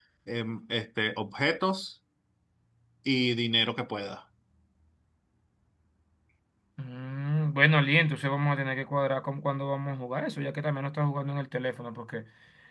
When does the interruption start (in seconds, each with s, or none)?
none